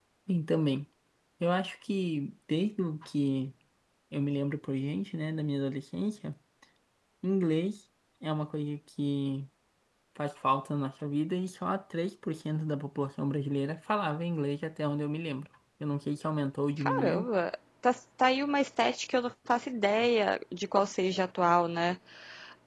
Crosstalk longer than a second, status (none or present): none